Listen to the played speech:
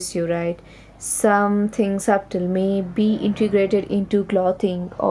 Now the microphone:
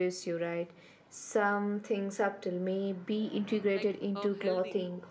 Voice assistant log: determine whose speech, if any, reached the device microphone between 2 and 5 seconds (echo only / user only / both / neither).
both